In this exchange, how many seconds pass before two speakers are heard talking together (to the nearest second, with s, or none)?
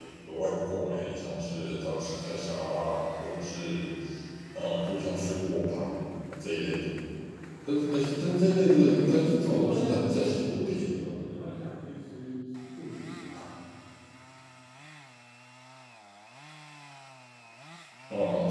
9 s